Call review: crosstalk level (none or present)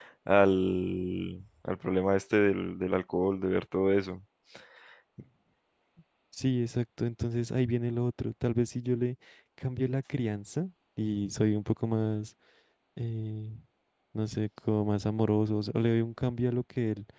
none